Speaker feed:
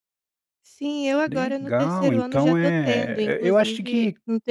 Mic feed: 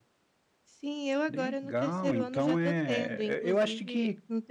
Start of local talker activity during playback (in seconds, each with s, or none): none